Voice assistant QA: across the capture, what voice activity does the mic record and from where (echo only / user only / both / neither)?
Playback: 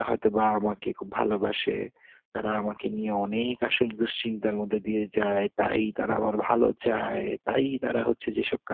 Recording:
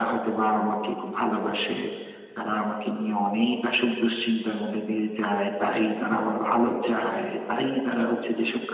echo only